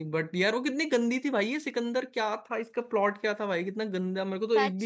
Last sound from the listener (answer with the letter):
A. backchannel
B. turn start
B